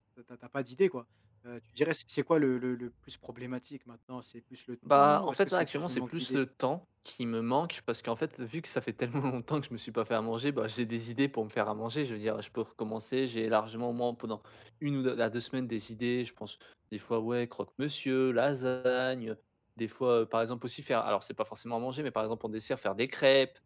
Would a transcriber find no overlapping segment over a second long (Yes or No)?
No